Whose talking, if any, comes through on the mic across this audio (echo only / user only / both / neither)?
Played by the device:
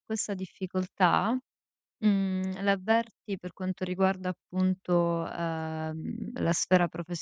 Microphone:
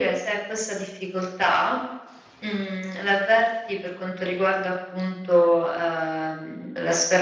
echo only